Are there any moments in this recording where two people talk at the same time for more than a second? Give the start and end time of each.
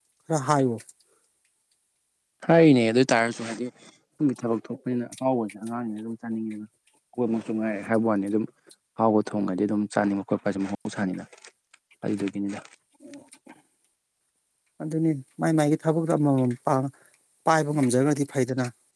none

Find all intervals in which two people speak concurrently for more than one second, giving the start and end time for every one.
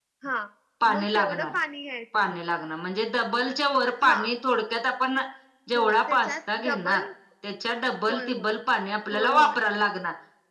5.7-7.0

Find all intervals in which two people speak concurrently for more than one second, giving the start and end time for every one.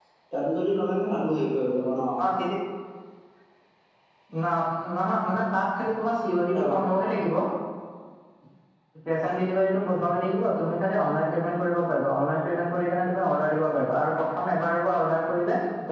none

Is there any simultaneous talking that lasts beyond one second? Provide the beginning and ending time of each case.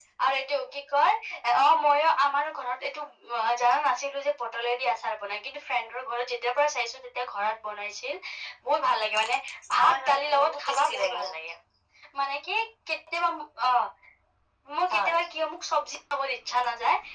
9.8-11.2

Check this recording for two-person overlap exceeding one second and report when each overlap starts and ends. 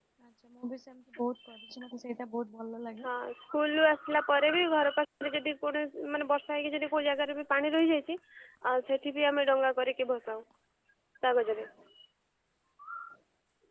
none

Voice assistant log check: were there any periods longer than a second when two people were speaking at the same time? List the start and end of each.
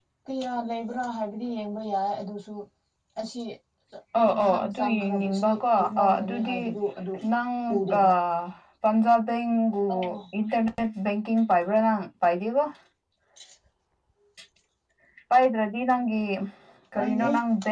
4.4-6.6

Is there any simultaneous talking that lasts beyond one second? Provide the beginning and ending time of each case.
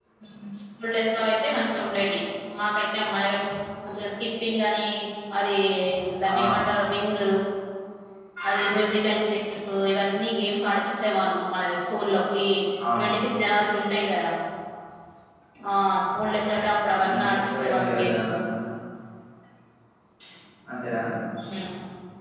17.1-18.3

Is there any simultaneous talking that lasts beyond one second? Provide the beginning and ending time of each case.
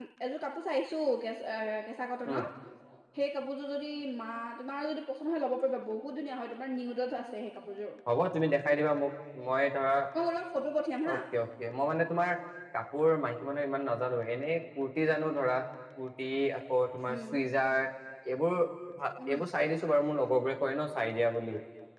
none

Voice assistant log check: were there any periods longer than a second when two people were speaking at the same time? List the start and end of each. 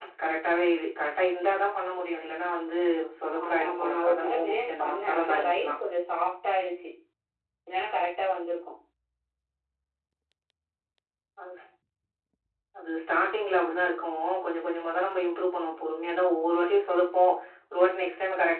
3.4-5.7

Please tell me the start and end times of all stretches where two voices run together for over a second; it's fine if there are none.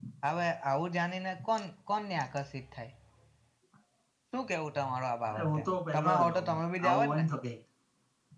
5.3-7.2

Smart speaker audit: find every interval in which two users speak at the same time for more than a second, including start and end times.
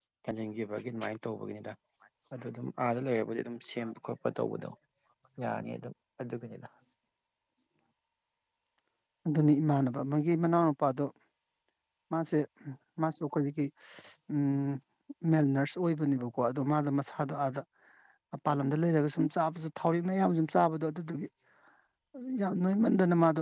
none

